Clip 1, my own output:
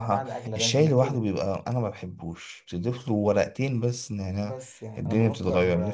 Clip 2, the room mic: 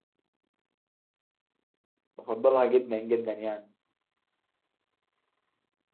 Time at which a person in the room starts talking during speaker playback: 2 s

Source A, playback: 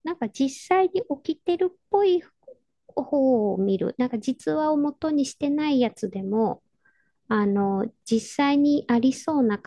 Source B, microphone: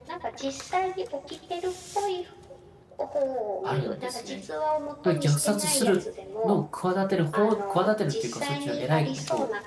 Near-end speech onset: 4 s

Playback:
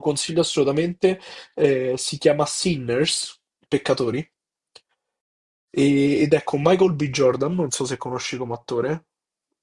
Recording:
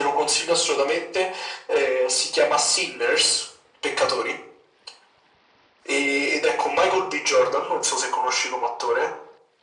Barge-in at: none

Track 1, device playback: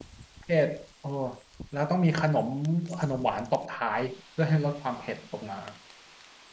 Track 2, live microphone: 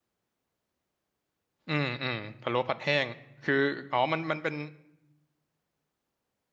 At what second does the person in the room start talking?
2 s

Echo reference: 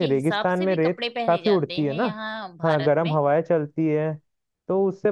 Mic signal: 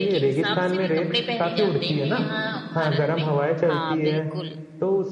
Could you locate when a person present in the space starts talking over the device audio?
4 s

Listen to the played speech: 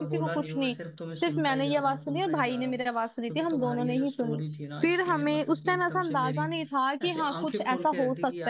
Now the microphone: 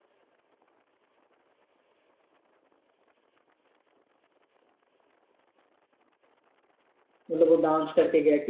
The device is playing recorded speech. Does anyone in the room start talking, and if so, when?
7 s

